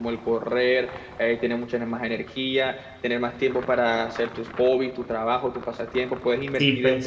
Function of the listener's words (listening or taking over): taking over